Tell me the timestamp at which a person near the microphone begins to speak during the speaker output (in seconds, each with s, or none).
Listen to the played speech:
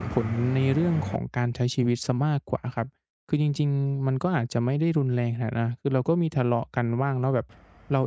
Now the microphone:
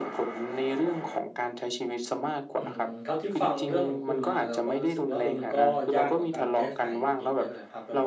2.6 s